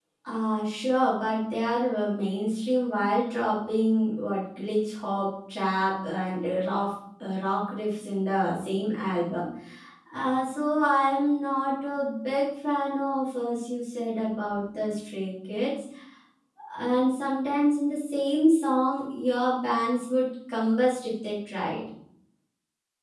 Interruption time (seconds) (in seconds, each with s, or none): none